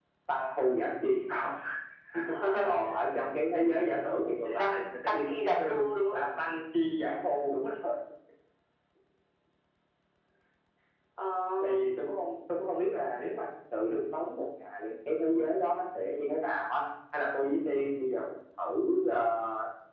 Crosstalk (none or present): present